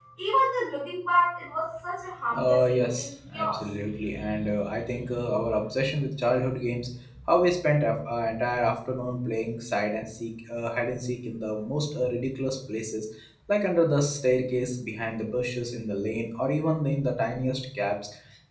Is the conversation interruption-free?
No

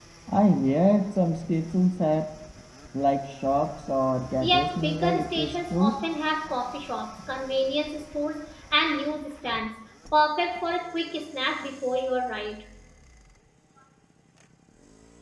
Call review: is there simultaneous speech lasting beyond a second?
Yes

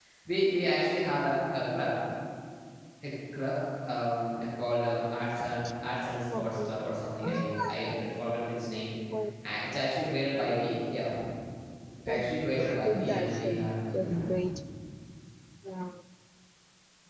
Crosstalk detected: Yes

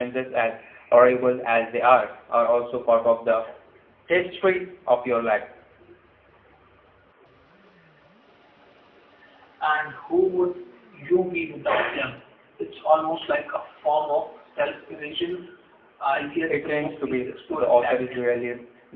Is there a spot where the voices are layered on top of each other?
Yes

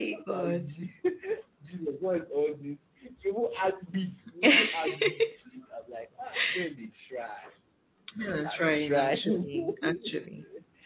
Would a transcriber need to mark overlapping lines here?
Yes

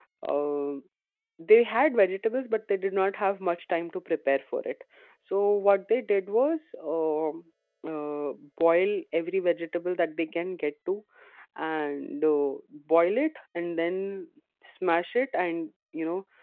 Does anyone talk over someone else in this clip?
No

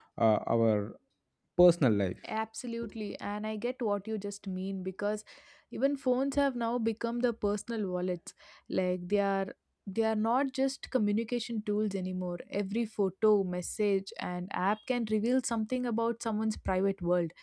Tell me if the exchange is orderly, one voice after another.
Yes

